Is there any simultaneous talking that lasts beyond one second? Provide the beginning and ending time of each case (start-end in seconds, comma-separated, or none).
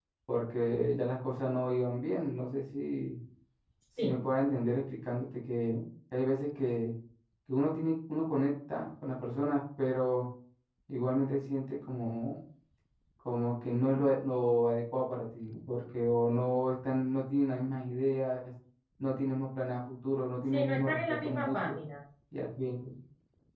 20.5-21.8